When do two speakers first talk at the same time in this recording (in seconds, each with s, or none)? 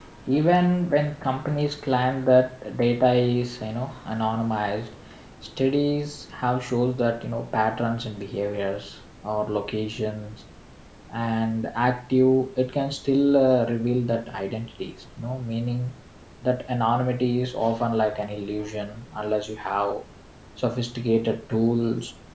none